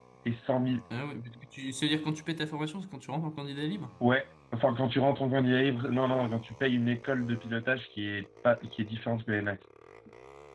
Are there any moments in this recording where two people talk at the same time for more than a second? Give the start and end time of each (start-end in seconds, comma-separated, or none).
none